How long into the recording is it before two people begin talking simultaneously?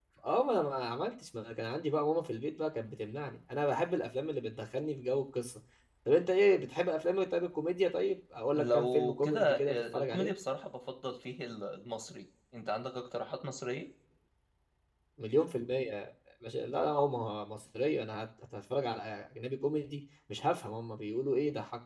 8.5 s

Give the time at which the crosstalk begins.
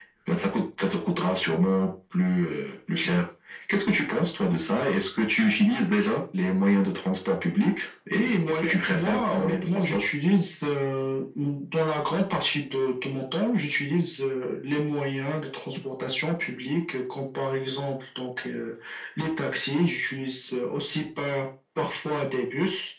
8.1 s

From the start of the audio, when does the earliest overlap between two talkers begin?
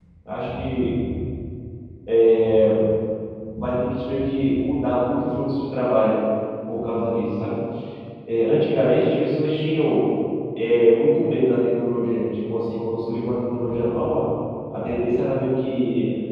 none

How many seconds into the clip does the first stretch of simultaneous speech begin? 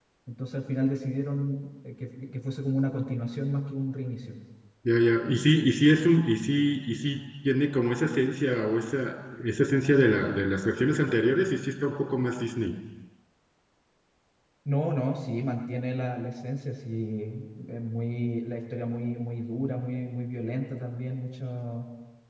none

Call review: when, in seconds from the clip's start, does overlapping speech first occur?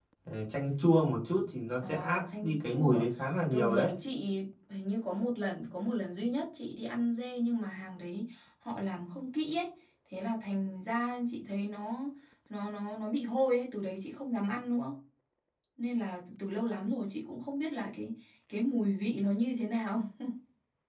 1.8 s

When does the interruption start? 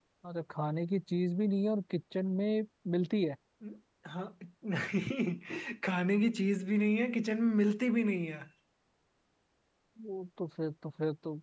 none

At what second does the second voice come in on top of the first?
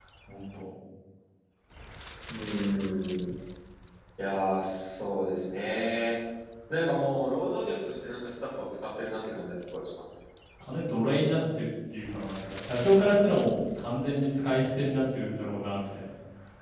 none

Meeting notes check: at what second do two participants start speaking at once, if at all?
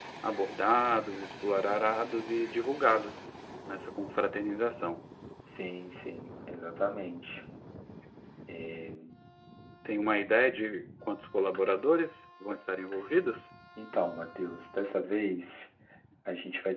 none

